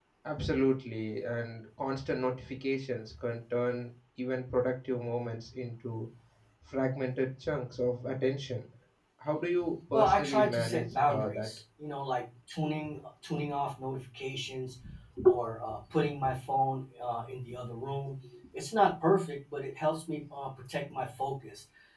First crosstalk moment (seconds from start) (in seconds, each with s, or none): 9.9 s